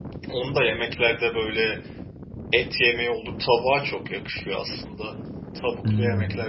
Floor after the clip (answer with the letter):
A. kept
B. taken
A